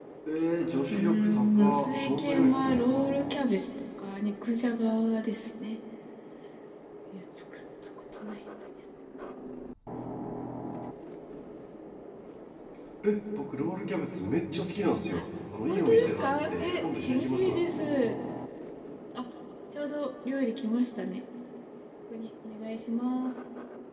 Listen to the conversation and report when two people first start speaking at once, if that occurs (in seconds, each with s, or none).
0.9 s